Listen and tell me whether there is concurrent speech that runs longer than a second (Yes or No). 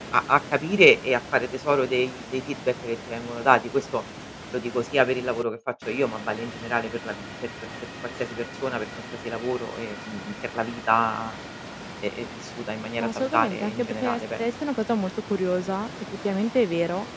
Yes